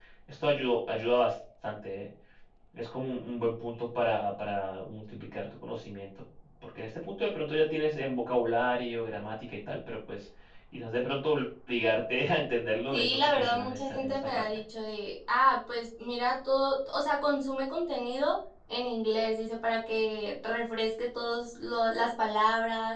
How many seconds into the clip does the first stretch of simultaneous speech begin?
12.9 s

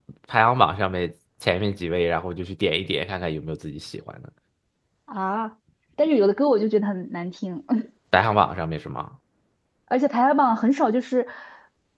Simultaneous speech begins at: none

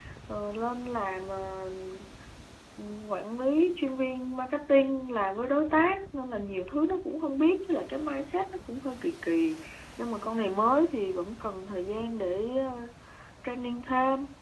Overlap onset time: none

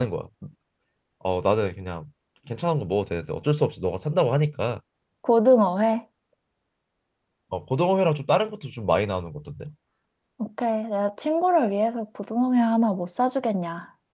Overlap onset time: none

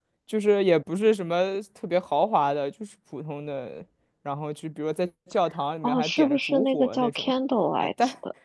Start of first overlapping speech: 5.8 s

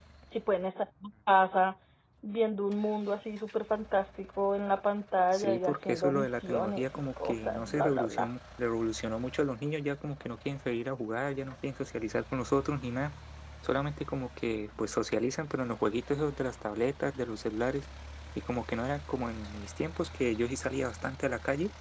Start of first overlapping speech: 5.3 s

